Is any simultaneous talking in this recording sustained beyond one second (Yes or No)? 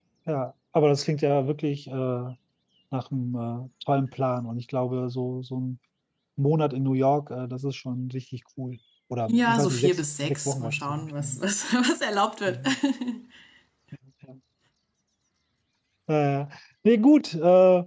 Yes